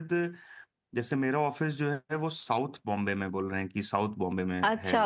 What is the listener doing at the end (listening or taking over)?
taking over